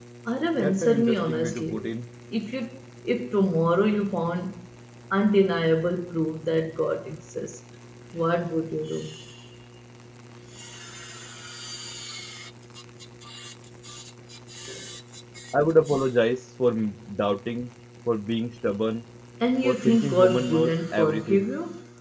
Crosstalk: present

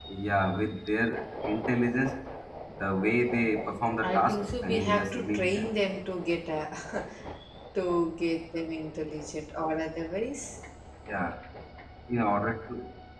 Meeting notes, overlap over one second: present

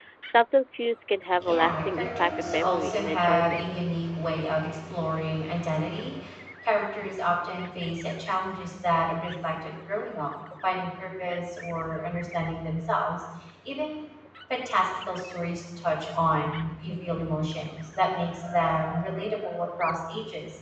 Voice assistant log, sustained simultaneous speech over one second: present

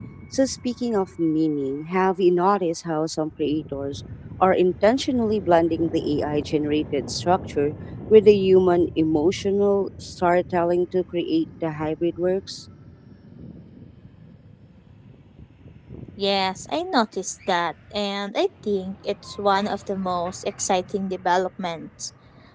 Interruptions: none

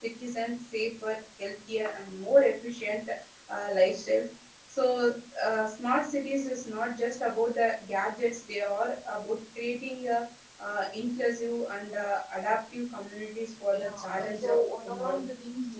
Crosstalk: present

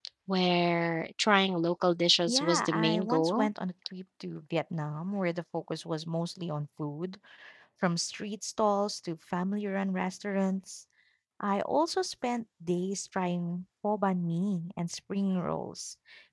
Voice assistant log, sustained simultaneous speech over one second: present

